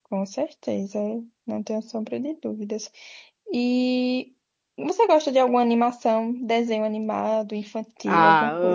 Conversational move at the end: taking over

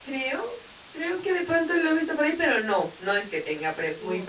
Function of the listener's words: taking over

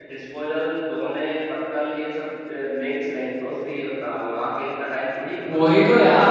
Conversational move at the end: taking over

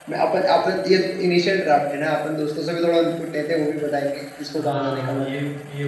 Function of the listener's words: taking over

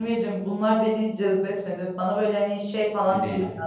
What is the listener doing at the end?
listening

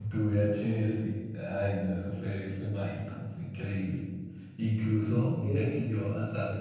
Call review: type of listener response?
listening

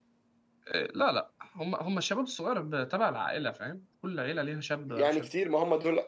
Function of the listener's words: taking over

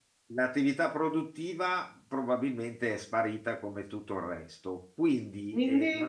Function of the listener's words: listening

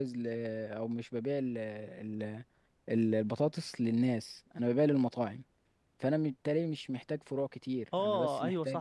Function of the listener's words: taking over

